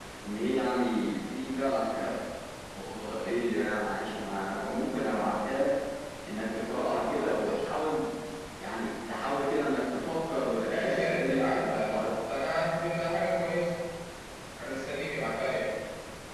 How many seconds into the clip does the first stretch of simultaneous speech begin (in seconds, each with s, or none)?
10.6 s